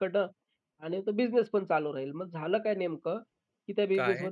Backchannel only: Yes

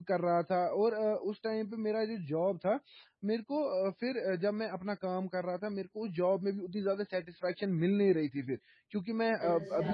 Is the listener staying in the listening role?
Yes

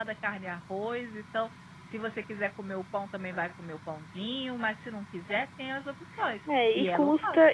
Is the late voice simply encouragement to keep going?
No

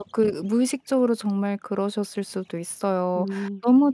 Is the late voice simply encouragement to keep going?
Yes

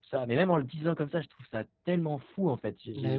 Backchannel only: Yes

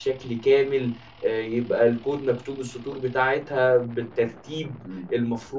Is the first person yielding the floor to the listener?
Yes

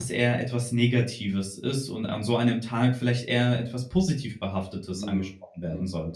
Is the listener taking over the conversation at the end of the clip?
Yes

